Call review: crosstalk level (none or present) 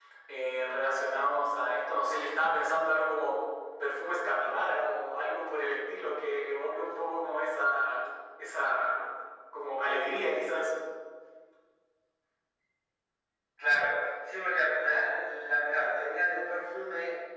none